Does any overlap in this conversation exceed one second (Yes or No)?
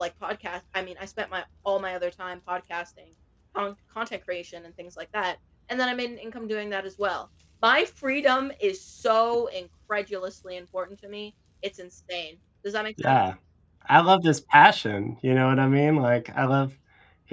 No